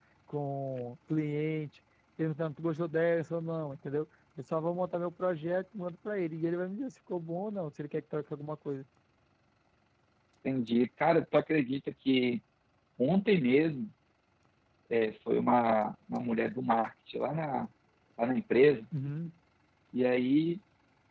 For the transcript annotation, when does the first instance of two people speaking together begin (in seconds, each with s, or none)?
none